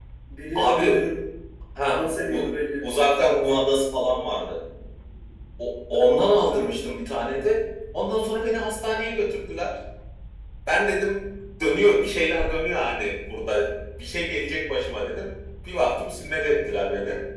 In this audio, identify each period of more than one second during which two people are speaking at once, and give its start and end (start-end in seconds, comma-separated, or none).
2.0-3.8